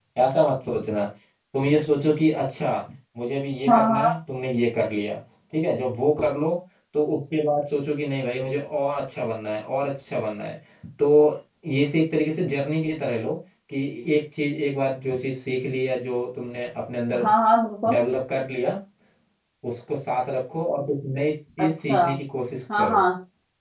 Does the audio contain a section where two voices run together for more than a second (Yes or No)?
No